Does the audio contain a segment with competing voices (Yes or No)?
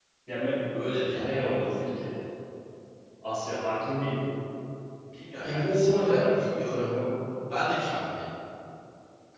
Yes